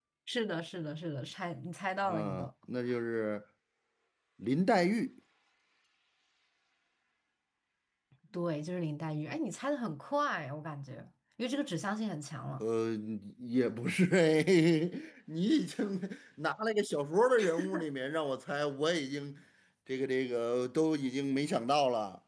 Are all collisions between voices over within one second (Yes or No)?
Yes